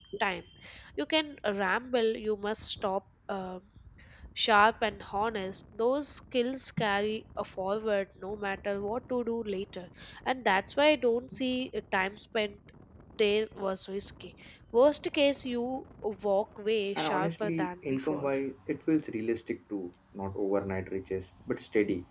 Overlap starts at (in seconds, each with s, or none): 17.0 s